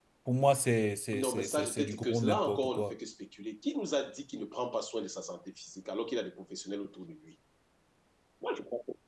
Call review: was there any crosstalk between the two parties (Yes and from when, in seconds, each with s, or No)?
Yes, from 1.2 s